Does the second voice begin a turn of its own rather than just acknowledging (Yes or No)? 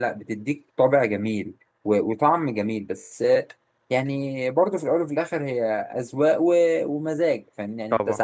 No